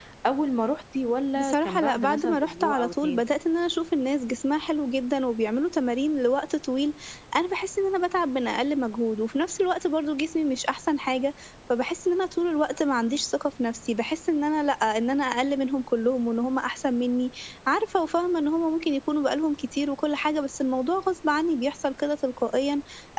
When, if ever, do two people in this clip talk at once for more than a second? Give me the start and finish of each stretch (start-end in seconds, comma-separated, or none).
1.4-3.2